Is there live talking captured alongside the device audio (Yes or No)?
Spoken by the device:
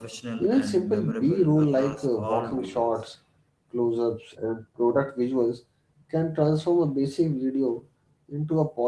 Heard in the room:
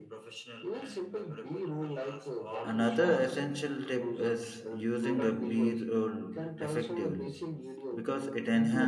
Yes